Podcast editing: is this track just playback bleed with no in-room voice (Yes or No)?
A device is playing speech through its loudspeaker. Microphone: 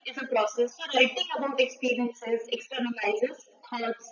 Yes